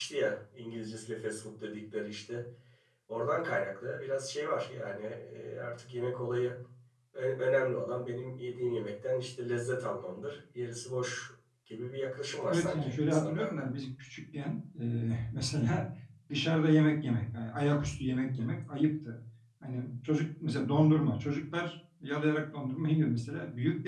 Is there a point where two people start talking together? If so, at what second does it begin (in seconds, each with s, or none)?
12.5 s